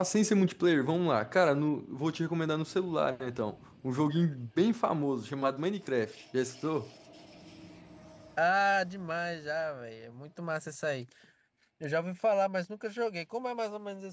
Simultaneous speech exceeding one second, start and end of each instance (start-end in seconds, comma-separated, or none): none